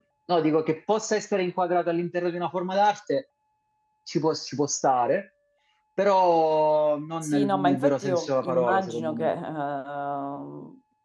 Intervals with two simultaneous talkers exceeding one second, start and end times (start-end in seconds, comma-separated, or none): 7.2-9.3